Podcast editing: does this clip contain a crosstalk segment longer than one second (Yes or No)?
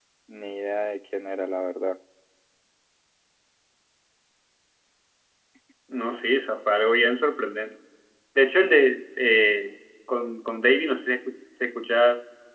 No